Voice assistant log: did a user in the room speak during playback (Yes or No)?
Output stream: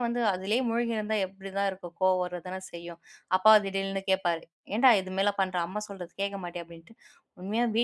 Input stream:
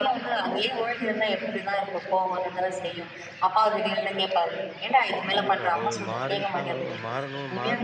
Yes